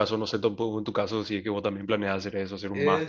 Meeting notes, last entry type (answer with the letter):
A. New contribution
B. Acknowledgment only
A